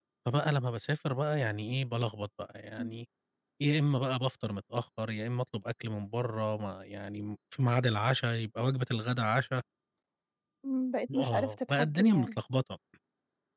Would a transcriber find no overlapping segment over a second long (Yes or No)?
No